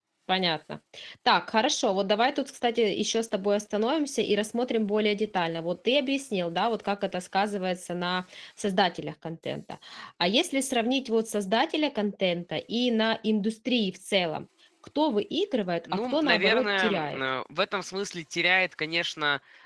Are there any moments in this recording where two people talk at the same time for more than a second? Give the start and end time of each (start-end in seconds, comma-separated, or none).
15.9-17.2